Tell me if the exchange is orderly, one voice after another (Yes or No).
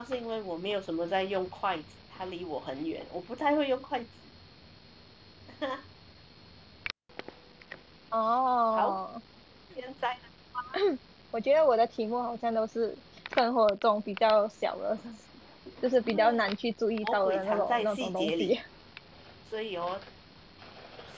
No